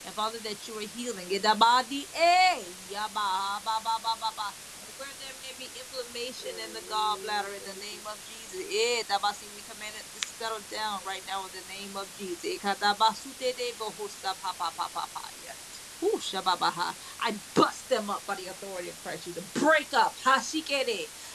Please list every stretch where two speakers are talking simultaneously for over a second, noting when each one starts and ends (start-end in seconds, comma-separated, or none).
6.4-7.8